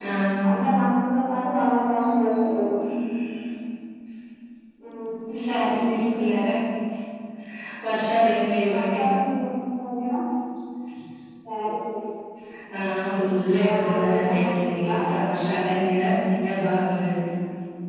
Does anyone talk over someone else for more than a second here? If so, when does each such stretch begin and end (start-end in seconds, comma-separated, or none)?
13.7-14.9